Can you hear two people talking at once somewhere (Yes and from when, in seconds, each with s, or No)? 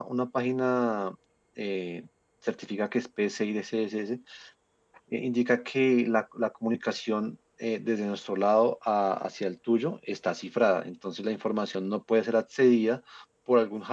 No